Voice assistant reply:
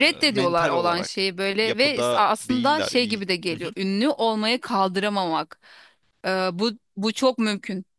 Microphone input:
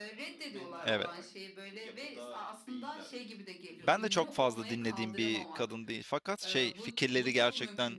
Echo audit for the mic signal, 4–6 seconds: both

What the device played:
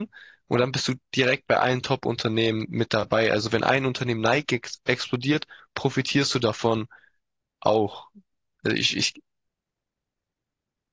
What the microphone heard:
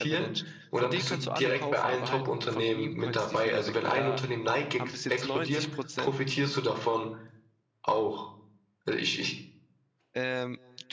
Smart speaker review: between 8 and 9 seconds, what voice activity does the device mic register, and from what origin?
echo only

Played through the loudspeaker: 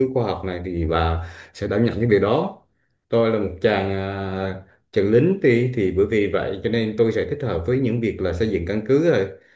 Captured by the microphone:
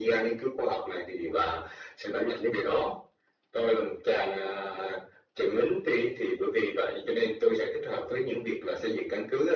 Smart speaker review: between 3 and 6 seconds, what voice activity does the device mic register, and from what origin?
echo only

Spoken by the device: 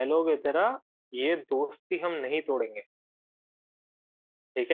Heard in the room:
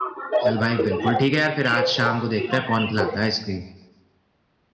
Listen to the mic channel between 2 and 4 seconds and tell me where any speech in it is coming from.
both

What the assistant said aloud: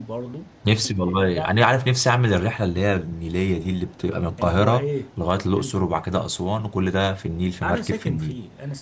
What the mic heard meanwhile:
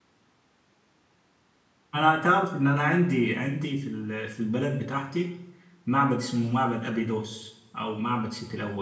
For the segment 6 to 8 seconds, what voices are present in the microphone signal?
user only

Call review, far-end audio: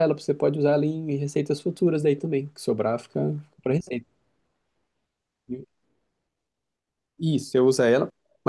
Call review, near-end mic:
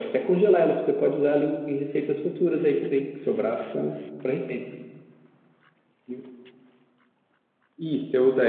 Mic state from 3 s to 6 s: echo only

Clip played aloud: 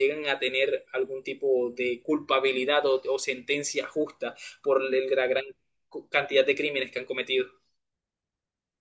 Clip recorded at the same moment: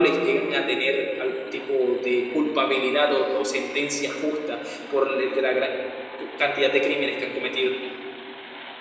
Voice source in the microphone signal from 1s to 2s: echo only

